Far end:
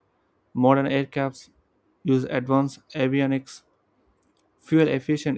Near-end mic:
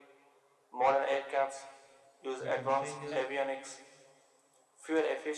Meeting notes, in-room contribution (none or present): present